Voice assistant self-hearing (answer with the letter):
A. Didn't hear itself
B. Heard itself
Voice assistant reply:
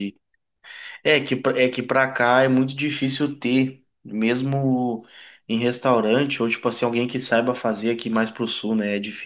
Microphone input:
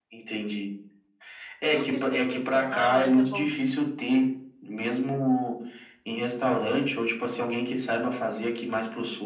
B